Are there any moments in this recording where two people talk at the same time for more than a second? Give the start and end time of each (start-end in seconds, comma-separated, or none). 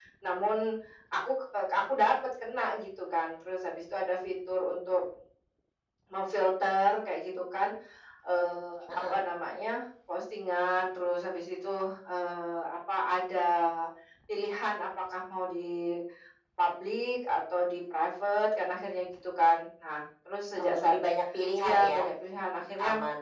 none